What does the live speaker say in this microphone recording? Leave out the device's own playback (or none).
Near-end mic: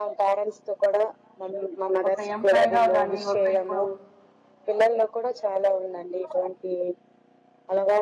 ఒక ఎంప్లాయ గా గాని ఒక ఇప్పుడు